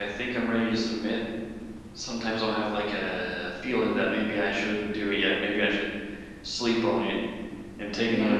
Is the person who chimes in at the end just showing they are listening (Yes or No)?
Yes